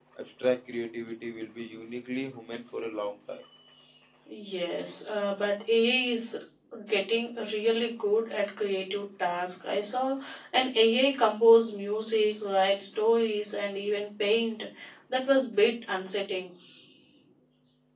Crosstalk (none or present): none